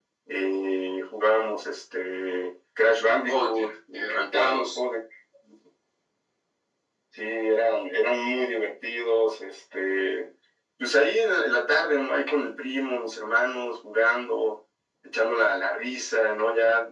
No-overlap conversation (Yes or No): No